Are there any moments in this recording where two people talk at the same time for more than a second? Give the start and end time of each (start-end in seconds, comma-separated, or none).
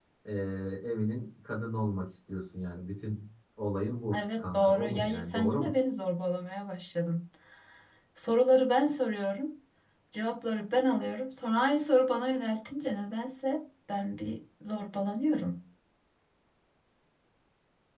4.1-5.7